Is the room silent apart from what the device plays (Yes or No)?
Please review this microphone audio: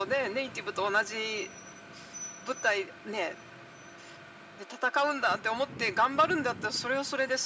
Yes